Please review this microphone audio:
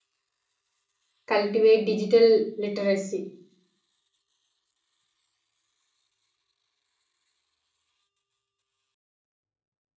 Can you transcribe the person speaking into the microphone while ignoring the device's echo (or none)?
cultivate digital literacy